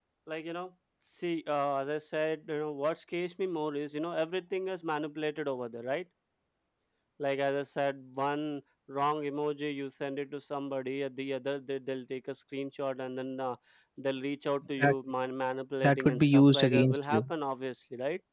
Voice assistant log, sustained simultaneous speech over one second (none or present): present